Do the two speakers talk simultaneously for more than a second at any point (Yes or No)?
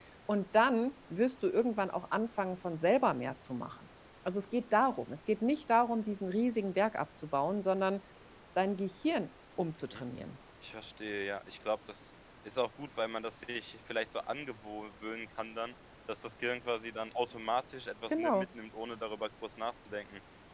No